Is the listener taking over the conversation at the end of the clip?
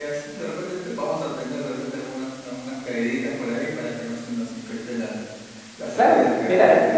Yes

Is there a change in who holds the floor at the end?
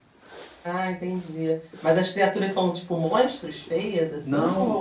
Yes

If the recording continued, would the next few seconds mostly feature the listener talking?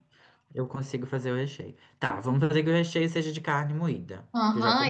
Yes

